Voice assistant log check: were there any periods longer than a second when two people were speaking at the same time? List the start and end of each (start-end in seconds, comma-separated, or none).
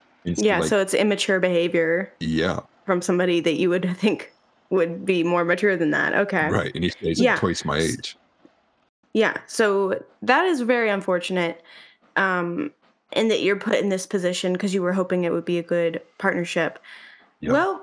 none